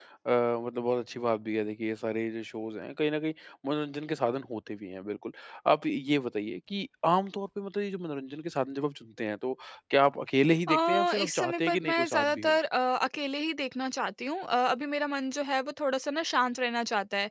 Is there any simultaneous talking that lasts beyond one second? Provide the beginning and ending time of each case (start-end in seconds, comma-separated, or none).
10.7-12.5